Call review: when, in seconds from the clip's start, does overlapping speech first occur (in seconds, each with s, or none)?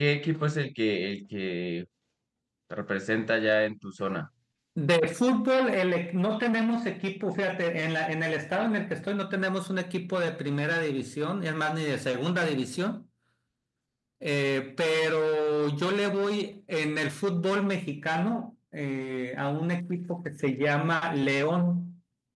none